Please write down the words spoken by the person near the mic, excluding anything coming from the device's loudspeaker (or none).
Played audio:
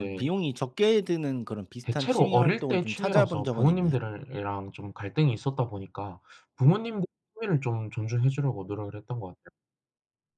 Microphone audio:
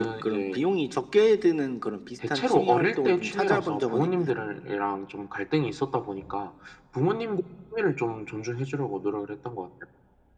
none